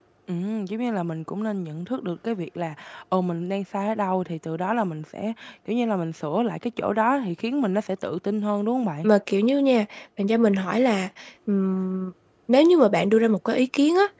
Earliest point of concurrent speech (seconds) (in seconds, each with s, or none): none